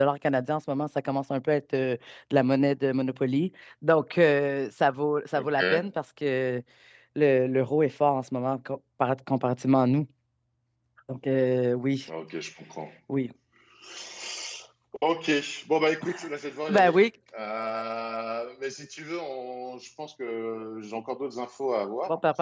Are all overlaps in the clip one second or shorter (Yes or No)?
Yes